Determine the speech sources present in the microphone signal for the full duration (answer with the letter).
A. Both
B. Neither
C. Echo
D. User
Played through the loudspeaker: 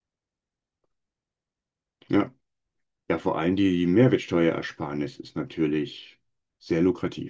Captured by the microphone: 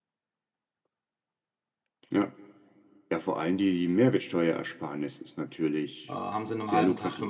A